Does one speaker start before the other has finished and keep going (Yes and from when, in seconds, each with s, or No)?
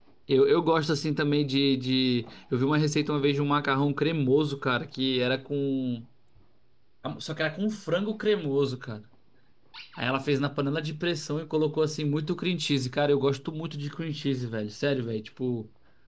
No